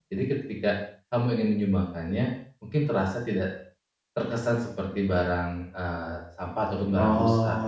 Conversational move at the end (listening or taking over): taking over